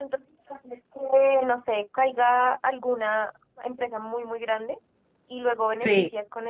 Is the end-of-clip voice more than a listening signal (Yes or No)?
No